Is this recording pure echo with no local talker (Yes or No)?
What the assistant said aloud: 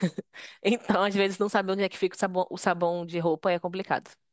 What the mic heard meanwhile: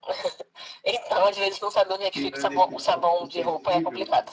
No